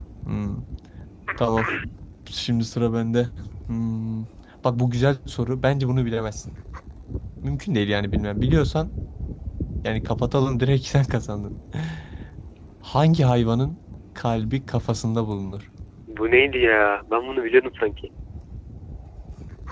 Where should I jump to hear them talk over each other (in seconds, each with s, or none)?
none